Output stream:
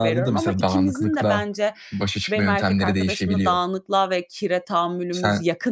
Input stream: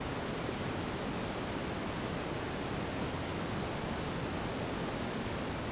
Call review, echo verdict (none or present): none